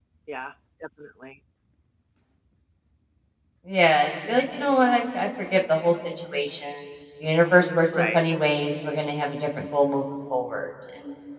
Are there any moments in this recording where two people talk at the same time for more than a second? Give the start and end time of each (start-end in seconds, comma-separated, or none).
none